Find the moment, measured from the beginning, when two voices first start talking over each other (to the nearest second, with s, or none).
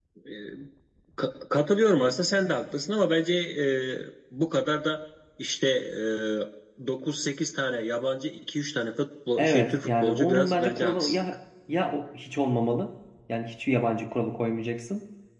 9 s